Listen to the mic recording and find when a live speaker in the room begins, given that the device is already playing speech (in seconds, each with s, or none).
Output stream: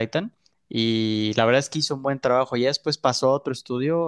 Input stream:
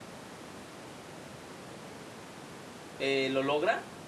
3.0 s